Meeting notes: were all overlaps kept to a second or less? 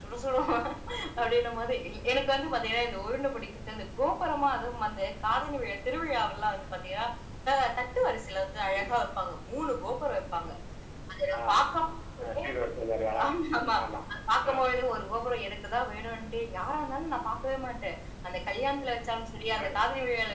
Yes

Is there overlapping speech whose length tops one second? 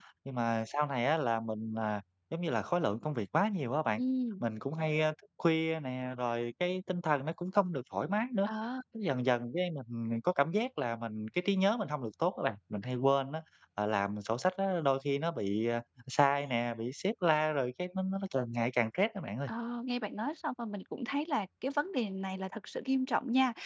No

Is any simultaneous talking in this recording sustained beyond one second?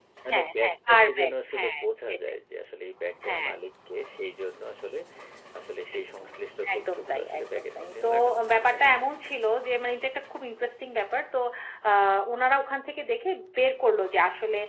Yes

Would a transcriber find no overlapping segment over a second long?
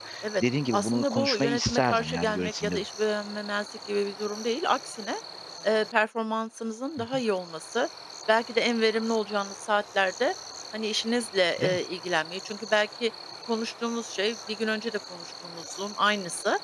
No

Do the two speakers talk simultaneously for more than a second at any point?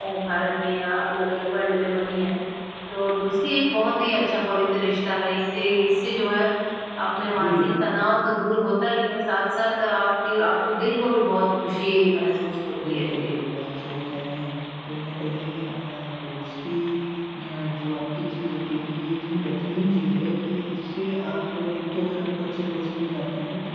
No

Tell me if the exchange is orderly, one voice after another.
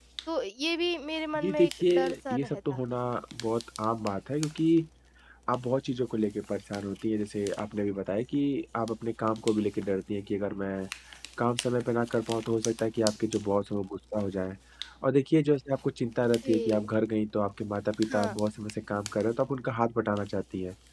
No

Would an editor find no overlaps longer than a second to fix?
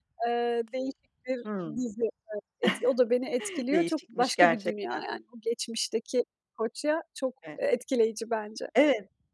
No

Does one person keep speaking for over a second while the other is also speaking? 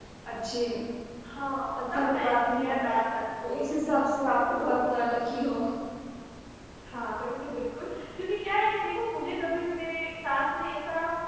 Yes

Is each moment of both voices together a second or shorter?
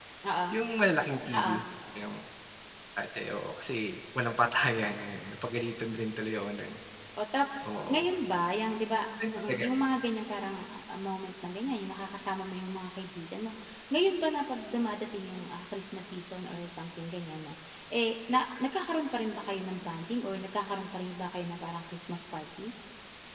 Yes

